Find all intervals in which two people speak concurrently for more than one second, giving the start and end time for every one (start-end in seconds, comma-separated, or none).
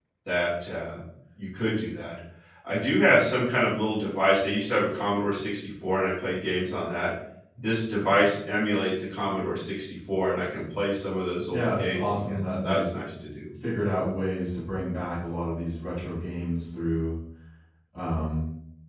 11.5-12.9